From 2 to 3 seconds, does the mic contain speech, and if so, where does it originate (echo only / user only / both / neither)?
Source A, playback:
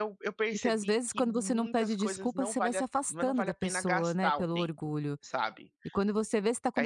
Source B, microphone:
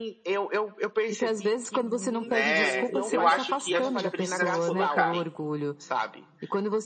both